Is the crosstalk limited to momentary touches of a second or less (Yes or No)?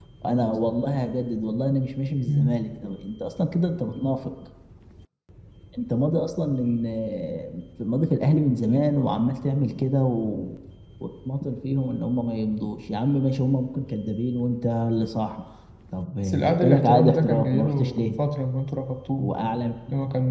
No